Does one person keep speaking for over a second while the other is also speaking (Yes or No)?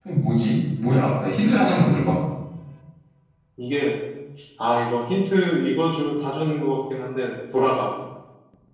No